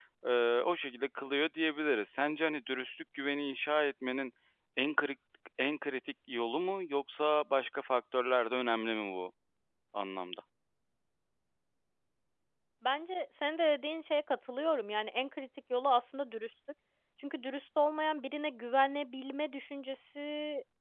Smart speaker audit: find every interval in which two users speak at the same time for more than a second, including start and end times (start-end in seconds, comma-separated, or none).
none